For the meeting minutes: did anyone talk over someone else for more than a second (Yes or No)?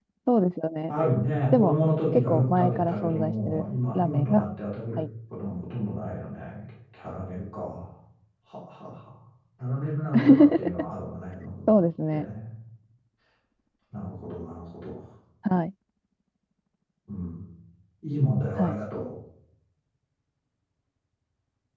Yes